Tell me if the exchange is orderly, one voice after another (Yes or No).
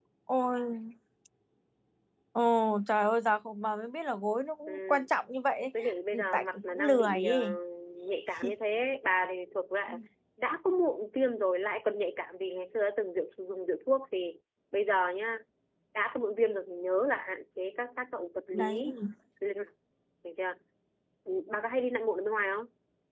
No